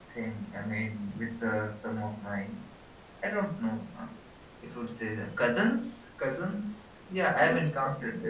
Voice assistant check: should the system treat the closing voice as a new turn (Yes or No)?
Yes